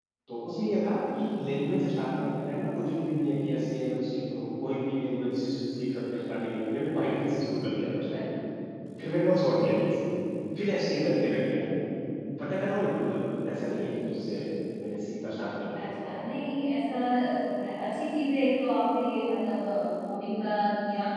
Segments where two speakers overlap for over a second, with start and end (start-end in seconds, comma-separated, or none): none